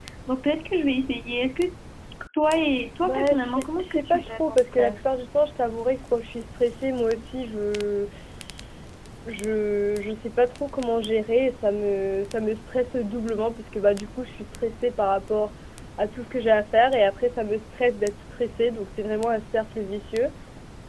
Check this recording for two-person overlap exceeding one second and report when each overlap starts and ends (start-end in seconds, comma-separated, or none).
3.0-5.1